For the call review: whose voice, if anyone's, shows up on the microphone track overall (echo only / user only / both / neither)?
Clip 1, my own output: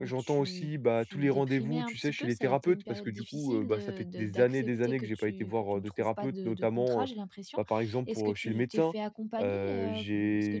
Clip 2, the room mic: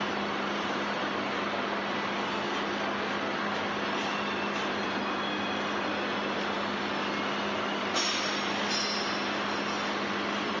neither